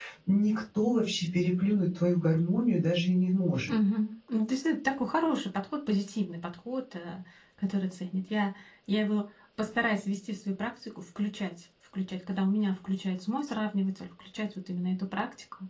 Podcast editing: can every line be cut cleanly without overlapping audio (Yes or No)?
Yes